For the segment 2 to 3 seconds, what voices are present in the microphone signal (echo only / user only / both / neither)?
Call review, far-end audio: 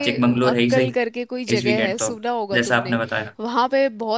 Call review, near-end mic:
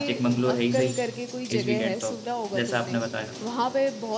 echo only